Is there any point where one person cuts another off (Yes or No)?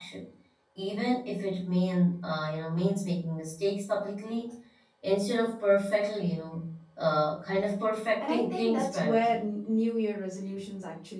Yes